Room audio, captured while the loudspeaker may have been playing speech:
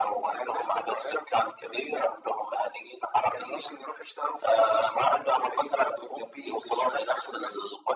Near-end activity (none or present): none